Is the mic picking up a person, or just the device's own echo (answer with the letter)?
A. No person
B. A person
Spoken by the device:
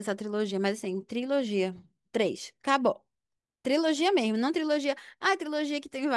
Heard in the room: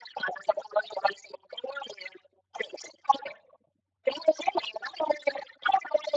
A